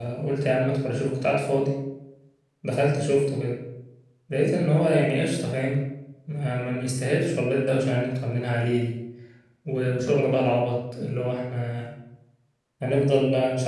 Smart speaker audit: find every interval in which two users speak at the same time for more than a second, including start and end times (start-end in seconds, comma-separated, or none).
none